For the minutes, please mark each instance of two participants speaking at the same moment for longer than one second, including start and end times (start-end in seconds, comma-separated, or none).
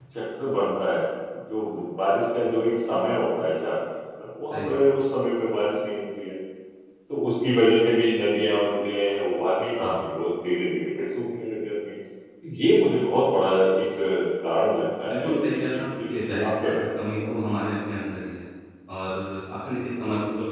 15.1-17.4